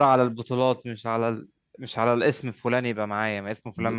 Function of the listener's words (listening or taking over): listening